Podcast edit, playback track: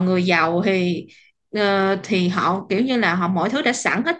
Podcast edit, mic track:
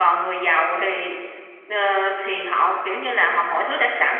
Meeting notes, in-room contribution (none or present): none